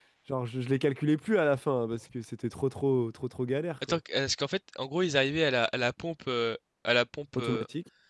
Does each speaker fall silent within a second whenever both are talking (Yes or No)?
Yes